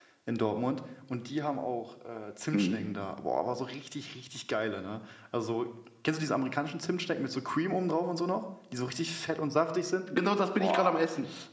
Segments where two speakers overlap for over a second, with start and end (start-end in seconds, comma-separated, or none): none